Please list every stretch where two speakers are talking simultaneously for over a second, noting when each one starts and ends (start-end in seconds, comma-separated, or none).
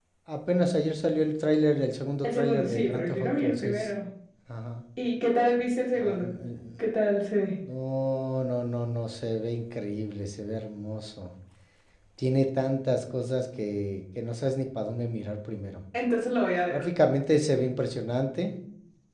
2.2-3.9